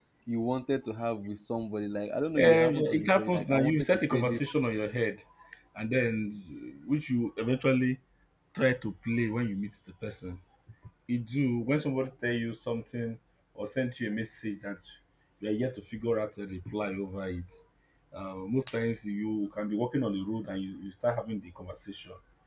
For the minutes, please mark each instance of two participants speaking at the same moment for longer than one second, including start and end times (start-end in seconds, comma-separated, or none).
2.4-4.4